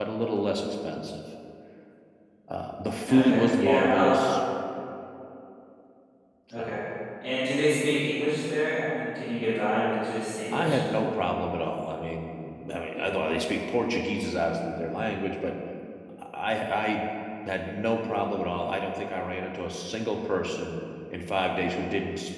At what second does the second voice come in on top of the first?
3.1 s

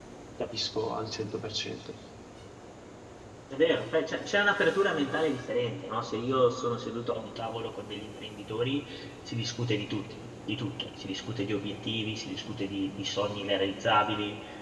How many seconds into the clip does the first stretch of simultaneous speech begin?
none

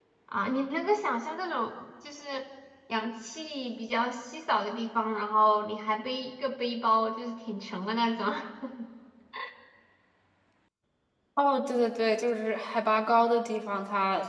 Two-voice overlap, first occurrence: none

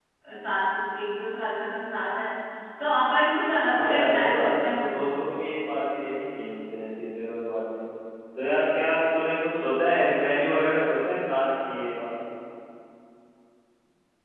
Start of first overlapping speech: 3.7 s

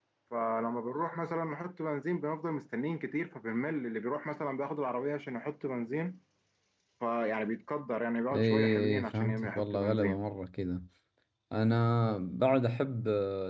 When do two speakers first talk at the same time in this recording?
8.3 s

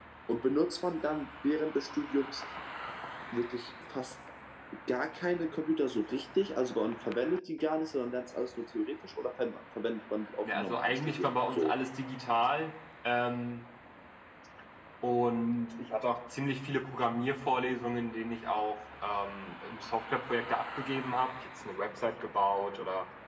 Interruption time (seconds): 10.4 s

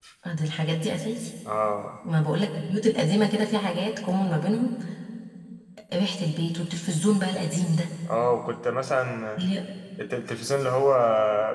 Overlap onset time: none

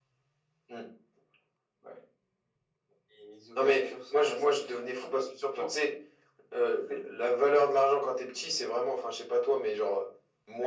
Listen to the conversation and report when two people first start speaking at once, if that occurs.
3.6 s

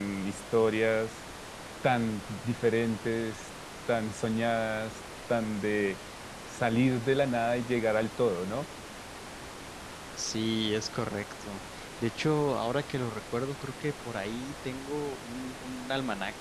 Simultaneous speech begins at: none

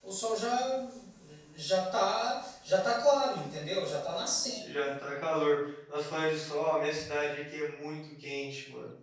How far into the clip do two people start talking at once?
none

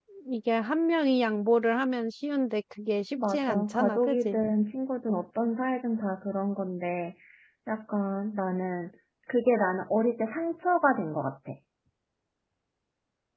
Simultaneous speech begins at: 3.2 s

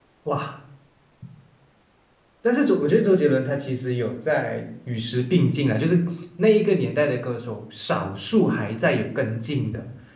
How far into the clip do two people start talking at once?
none

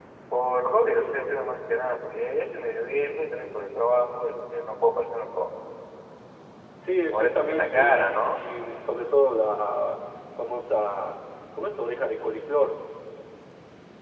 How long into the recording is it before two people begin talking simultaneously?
7.1 s

